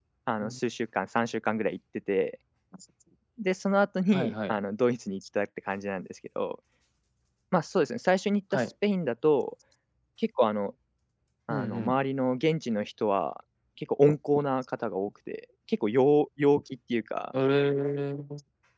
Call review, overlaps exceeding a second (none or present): none